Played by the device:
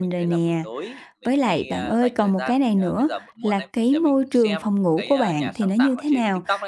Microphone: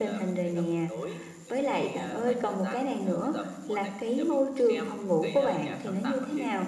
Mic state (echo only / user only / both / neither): echo only